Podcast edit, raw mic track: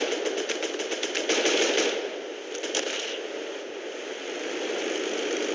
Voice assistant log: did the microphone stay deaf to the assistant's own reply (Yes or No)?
Yes